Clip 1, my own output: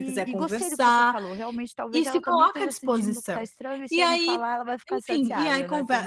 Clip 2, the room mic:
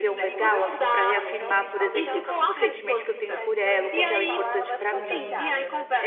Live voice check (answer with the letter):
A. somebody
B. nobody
A